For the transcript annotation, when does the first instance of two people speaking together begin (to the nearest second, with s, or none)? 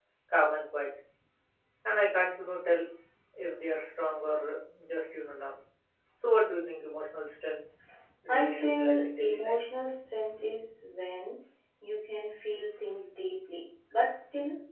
8 s